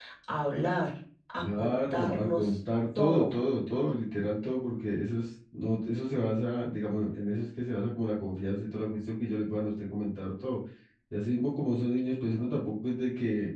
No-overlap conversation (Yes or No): No